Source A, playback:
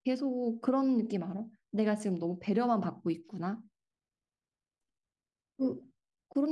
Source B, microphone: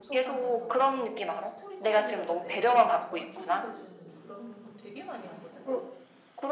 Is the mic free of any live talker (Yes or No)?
No